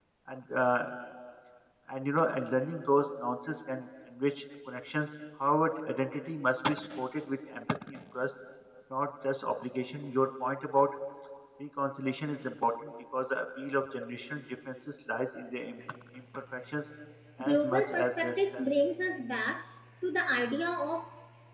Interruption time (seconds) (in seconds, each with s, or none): 17.4 s